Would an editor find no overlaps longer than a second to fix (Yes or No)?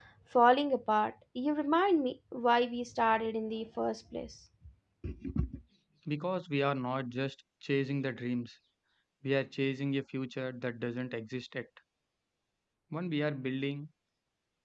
Yes